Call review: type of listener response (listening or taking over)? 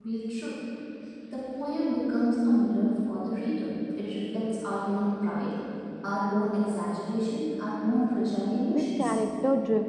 taking over